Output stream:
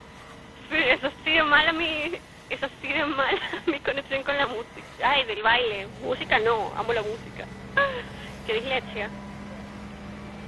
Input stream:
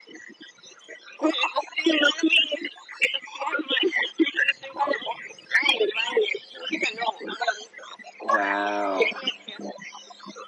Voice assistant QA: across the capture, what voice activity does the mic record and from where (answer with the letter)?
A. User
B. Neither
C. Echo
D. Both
D